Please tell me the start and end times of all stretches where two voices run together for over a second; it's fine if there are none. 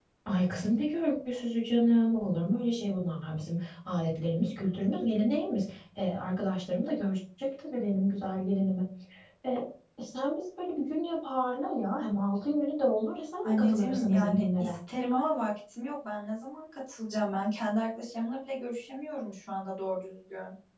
13.4-14.8

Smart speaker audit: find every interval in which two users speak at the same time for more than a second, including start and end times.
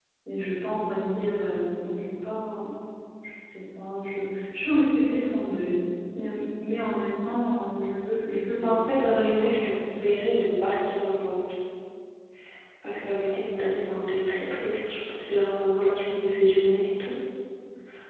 8.6-10.1

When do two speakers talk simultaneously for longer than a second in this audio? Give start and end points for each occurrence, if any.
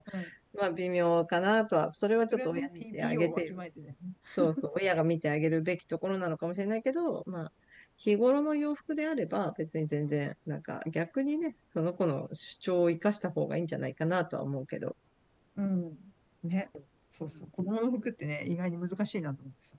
2.3-3.6

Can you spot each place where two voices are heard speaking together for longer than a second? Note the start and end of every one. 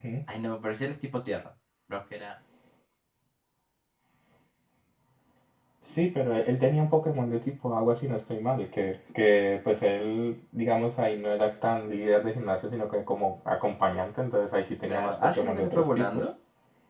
14.8-16.2

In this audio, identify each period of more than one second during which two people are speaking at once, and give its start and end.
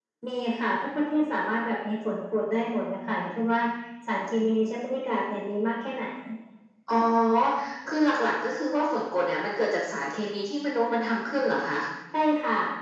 none

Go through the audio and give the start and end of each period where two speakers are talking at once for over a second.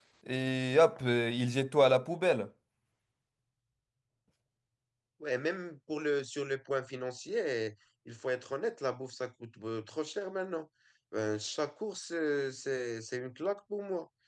none

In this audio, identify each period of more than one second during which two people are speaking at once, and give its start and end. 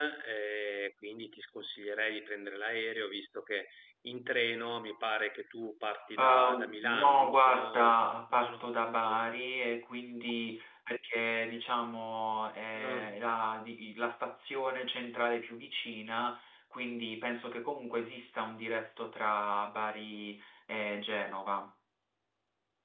6.2-8.0

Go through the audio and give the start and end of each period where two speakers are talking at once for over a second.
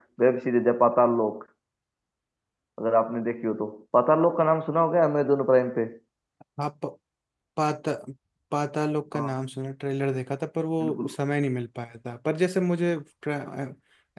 none

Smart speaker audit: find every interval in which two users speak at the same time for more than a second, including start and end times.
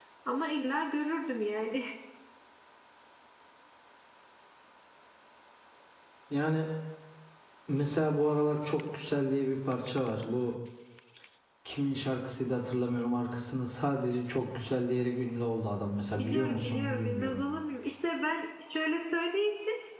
16.2-17.4

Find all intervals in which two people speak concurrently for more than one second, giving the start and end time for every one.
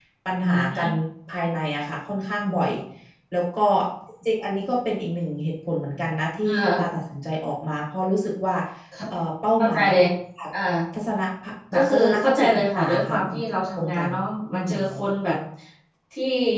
11.7-13.3

